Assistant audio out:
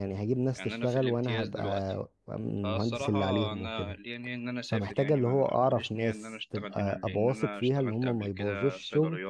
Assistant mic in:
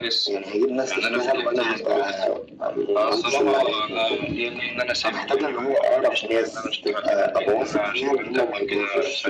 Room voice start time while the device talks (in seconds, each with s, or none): none